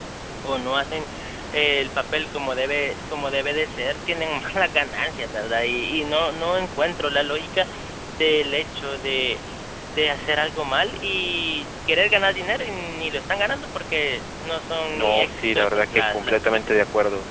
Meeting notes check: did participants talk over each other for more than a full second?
Yes, from 14.9 s

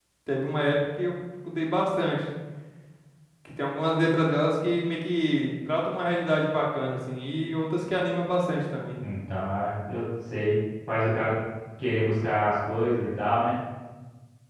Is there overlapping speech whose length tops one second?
No

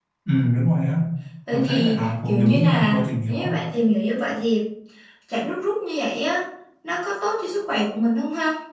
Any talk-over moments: Yes, from 1.5 s

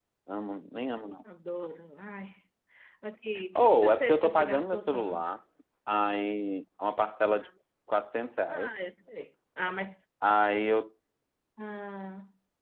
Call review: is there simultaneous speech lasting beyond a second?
Yes, from 3.6 s

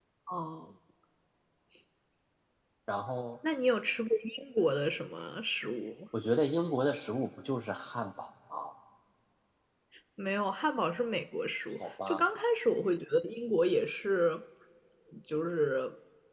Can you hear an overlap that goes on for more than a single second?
No

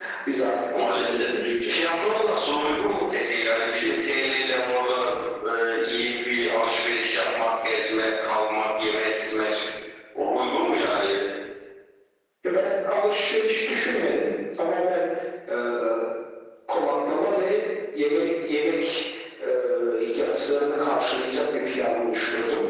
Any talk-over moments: Yes, from 0.7 s

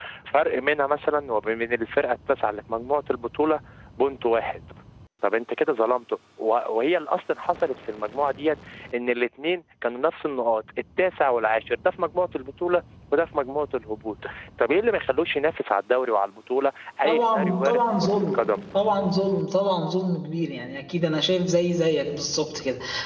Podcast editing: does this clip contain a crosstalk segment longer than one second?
Yes, from 17.0 s

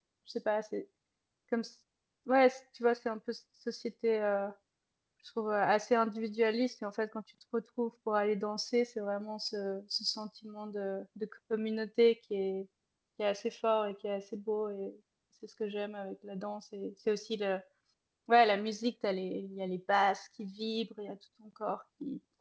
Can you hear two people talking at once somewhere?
No

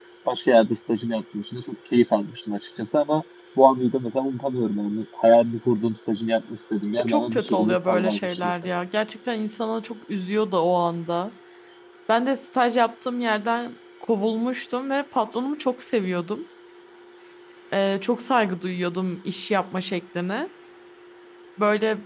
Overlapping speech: Yes, from 7.0 s

